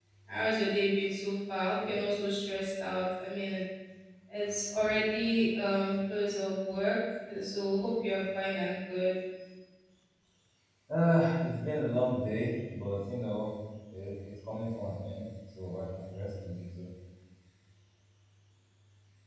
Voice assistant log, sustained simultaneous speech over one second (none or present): none